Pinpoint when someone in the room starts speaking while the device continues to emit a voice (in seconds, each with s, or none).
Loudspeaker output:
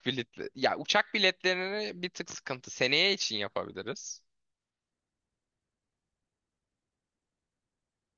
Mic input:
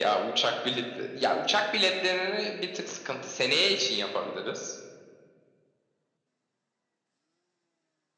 none